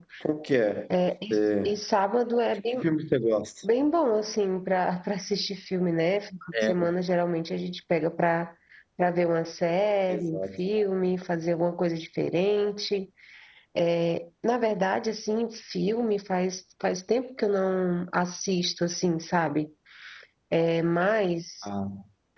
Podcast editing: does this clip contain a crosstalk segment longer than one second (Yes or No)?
No